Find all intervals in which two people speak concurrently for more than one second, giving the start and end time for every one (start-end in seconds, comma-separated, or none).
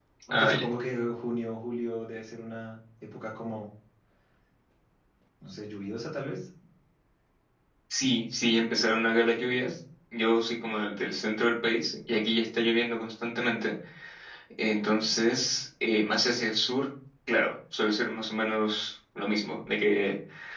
none